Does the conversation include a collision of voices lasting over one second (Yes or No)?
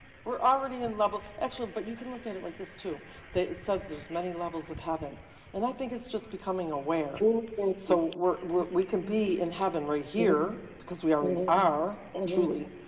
No